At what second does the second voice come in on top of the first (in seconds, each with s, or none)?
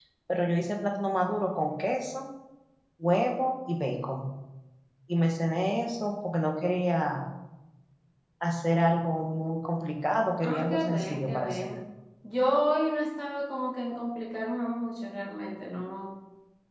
10.4 s